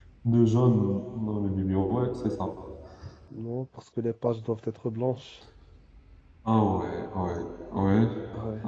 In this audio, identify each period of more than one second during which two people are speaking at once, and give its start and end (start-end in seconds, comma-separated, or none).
none